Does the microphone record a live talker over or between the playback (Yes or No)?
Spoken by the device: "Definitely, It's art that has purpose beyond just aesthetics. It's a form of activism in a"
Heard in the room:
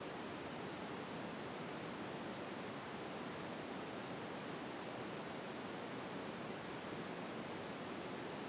No